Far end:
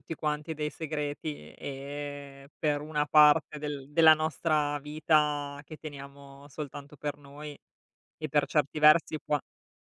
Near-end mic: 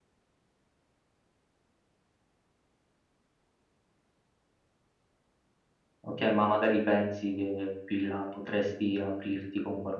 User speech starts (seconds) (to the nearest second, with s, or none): 6 s